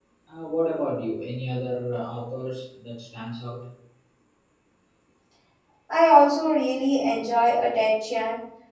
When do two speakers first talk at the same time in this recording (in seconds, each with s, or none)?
none